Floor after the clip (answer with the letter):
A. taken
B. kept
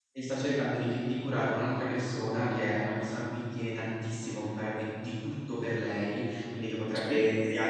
B